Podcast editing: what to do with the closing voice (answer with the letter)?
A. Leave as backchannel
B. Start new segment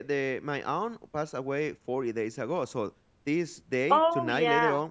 A